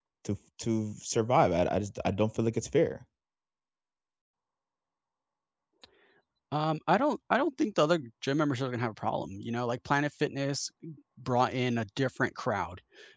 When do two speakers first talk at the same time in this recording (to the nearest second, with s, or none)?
none